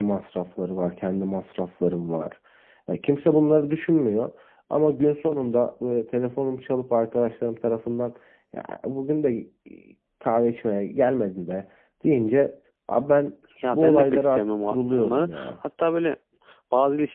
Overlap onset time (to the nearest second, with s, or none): 14 s